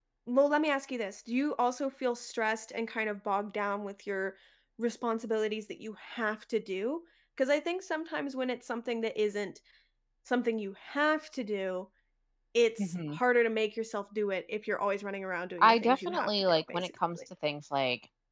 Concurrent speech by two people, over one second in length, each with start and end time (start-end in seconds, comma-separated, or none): 15.6-17.2